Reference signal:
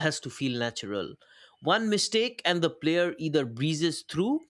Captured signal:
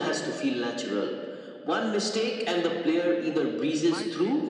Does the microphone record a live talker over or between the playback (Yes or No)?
Yes